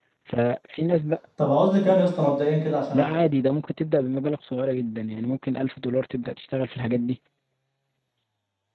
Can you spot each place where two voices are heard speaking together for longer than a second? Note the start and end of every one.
none

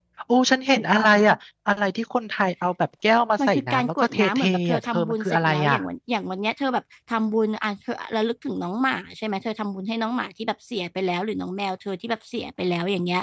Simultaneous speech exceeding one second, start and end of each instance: 3.5-5.8

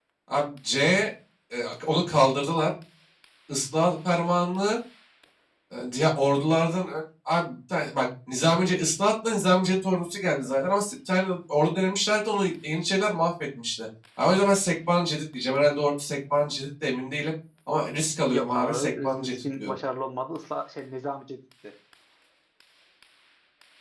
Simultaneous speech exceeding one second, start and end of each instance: 18.2-19.8

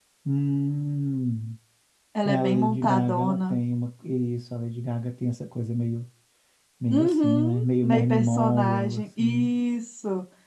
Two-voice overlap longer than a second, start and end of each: 2.2-3.6, 6.9-9.5

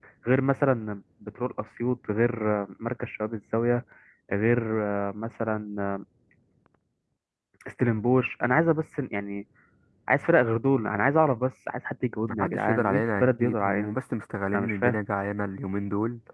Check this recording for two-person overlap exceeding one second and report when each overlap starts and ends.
12.3-13.9

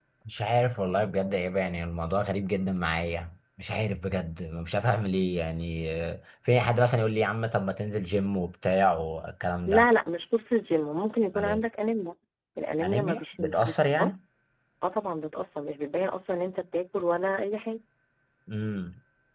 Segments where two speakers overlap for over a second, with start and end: 12.8-14.1

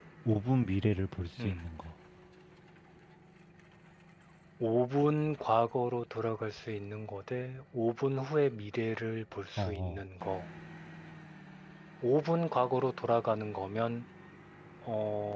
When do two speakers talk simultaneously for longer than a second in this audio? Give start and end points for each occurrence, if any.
none

